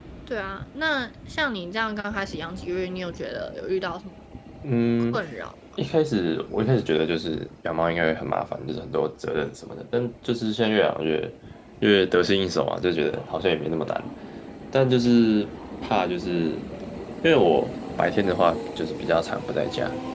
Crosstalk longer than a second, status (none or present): none